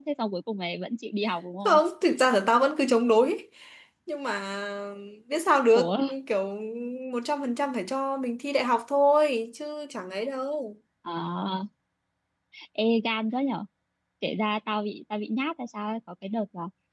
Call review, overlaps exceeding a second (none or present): none